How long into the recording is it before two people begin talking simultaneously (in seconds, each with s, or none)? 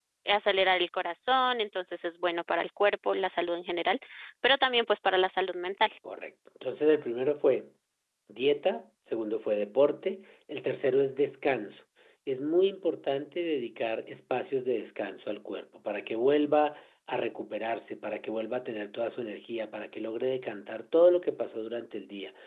none